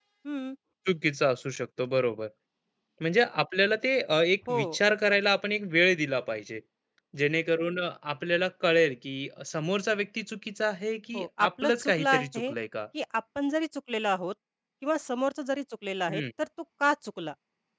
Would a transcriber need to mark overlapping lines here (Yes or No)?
Yes